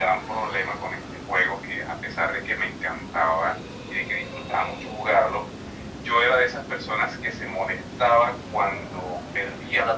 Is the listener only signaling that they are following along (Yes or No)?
Yes